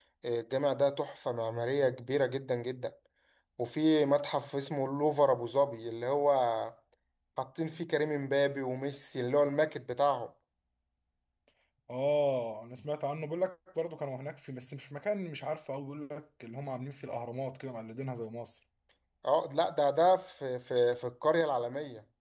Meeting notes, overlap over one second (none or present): none